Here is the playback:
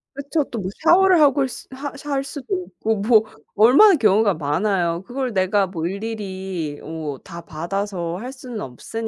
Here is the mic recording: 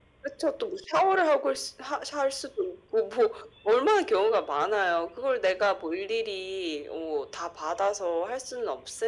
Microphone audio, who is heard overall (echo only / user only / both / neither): echo only